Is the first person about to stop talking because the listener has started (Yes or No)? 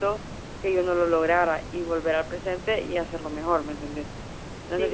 Yes